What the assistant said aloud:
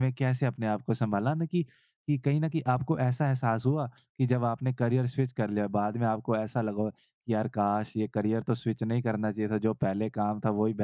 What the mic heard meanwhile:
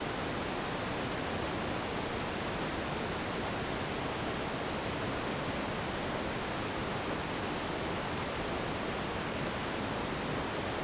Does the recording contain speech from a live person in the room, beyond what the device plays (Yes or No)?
No